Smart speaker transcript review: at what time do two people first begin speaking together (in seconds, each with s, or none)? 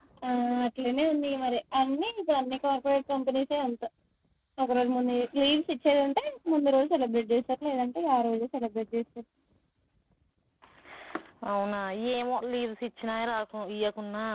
none